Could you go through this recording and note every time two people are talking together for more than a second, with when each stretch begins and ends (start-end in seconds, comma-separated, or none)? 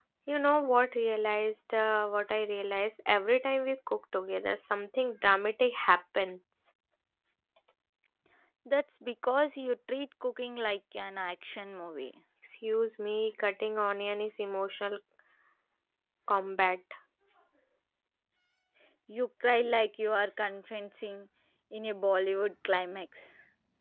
none